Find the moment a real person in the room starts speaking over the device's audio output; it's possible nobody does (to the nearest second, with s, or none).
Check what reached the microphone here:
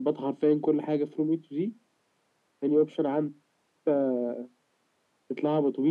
none